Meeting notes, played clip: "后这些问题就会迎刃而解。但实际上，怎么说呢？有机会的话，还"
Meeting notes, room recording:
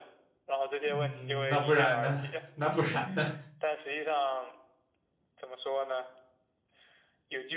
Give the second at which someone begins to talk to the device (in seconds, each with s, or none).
0.8 s